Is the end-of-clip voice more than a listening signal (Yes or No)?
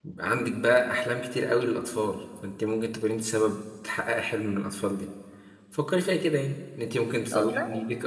No